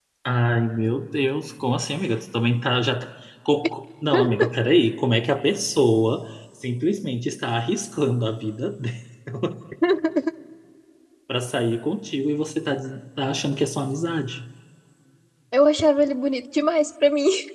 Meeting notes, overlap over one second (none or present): none